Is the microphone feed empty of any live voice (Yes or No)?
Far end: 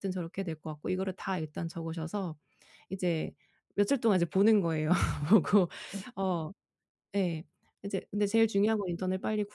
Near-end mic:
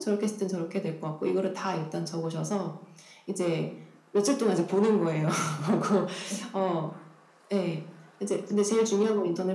Yes